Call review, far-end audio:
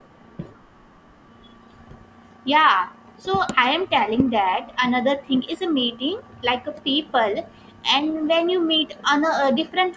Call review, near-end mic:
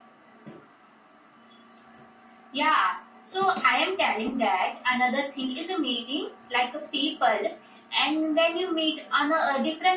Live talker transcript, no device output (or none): none